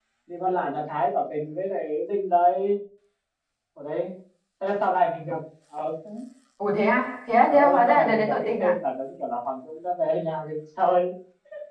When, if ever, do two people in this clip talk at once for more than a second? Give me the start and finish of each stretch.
7.4-8.7

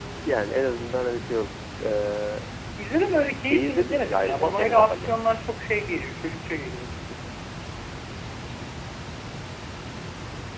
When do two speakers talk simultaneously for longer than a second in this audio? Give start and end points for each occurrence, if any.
3.5-5.1

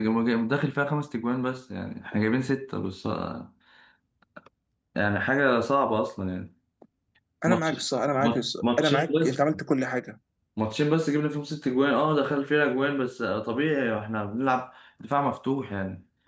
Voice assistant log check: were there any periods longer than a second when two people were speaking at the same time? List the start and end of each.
8.2-9.4

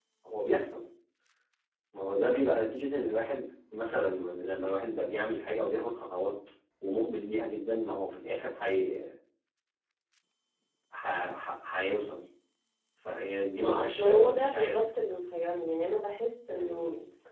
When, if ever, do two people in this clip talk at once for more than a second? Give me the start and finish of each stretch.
13.6-14.8

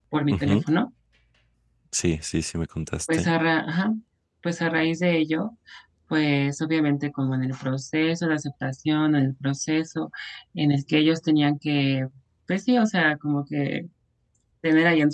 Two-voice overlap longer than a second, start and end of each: none

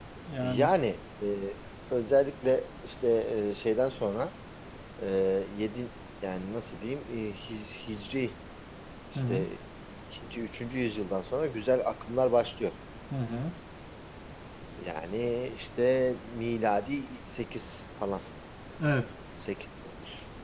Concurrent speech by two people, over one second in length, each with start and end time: none

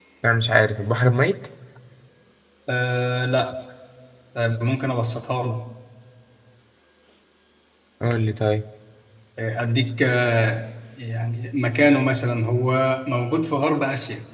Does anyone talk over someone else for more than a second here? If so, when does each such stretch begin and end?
none

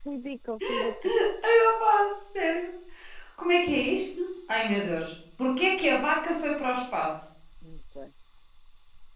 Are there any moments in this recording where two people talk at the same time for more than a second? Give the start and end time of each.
none

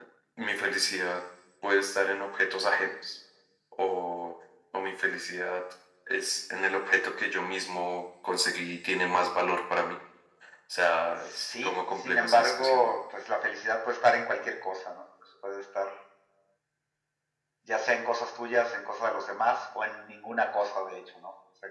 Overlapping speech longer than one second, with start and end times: 11.5-12.9

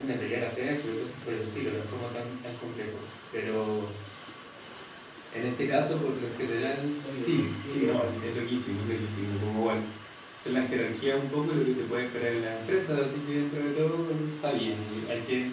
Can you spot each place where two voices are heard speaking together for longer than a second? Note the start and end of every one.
7.0-8.4

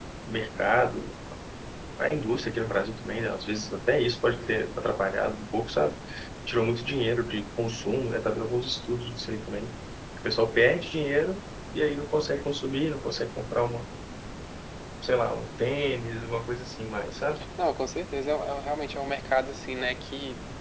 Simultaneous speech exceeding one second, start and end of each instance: none

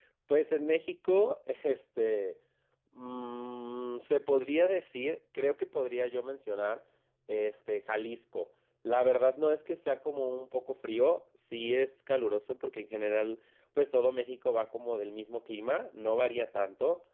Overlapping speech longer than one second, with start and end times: none

